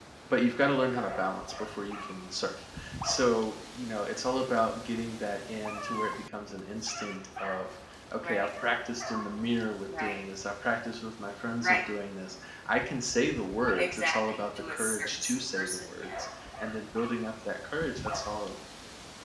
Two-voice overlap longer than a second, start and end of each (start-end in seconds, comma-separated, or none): 13.8-16.1